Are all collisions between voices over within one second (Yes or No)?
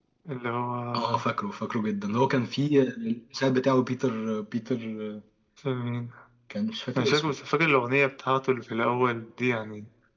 Yes